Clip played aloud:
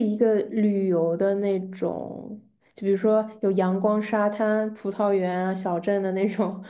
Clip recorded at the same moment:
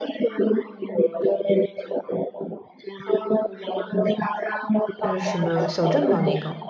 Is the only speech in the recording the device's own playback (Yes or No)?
No